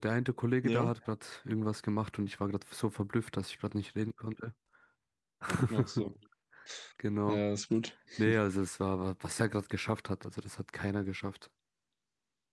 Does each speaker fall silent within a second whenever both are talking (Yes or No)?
Yes